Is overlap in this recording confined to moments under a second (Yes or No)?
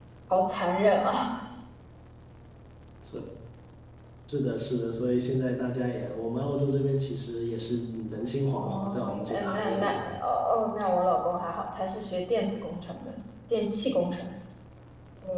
No